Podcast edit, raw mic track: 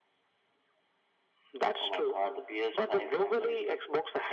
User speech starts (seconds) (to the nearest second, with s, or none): none